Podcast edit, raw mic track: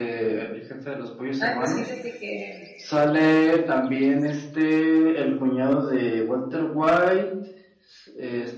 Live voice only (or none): Ah, pues fíjate que,